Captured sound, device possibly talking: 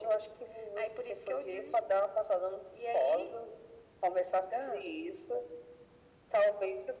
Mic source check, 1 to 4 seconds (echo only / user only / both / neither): echo only